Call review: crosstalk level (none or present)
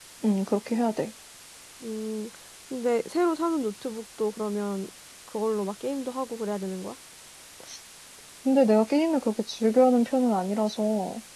none